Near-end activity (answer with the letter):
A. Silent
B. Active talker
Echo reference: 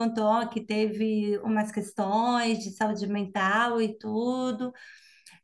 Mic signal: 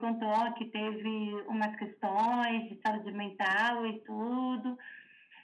A